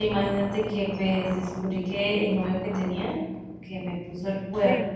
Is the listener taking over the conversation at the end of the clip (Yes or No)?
No